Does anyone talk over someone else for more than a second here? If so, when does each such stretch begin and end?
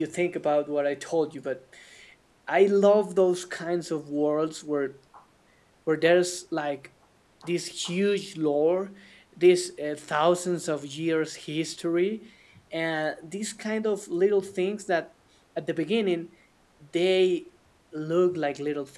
none

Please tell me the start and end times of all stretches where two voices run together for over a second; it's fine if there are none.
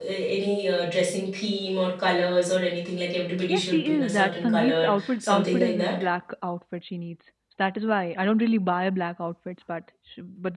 3.5-5.9

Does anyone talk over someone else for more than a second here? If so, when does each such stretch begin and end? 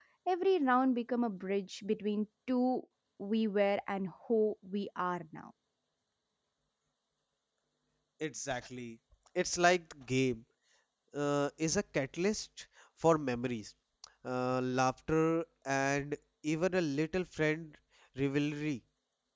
none

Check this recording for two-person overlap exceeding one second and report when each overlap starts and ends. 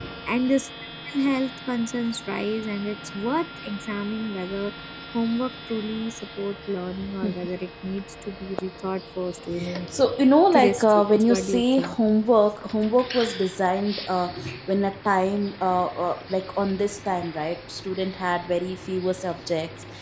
10.5-12.0

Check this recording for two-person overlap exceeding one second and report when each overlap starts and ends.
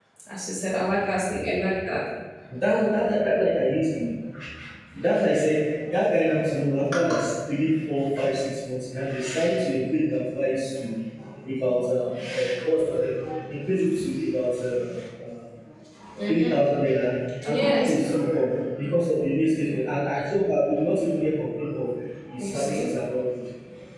none

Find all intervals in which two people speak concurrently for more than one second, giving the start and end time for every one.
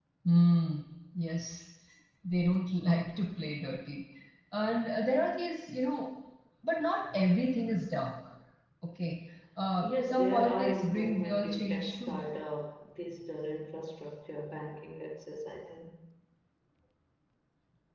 9.8-12.2

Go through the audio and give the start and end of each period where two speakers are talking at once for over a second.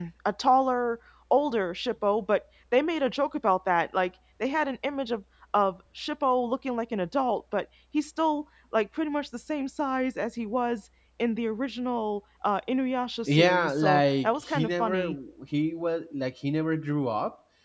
13.3-15.2

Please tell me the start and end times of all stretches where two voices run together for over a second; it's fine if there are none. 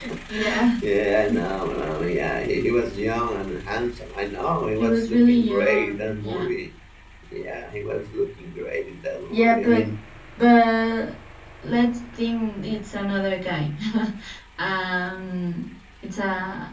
4.8-6.5

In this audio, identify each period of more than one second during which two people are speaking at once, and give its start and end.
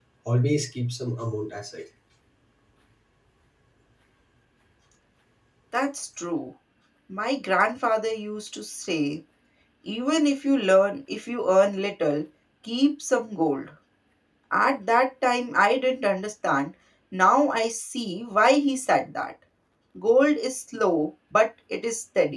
none

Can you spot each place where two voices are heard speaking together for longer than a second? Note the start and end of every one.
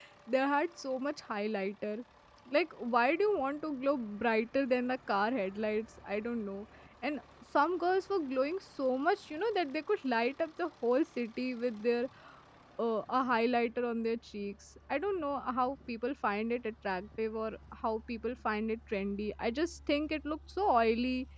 none

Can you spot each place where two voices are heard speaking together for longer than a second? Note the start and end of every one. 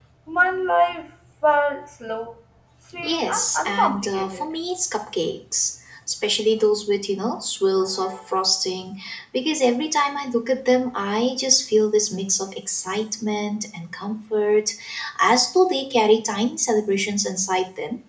3.0-4.4

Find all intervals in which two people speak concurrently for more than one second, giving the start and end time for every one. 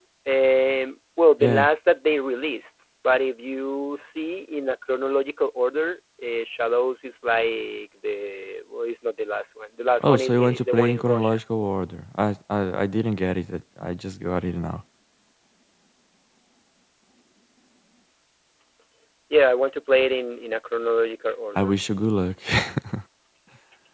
10.0-11.4

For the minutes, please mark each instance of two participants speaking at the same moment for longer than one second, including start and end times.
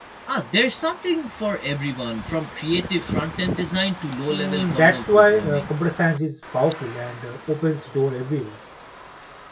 4.3-5.7

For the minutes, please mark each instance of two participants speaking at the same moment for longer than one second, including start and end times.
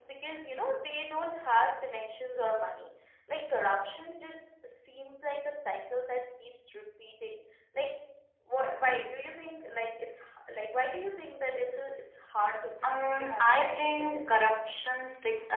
12.8-14.2

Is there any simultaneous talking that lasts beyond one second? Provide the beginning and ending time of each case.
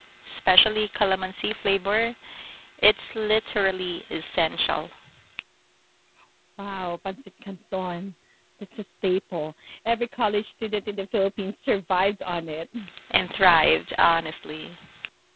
none

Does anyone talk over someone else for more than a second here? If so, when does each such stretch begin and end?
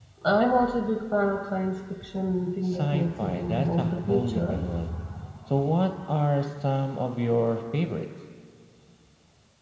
2.6-4.6

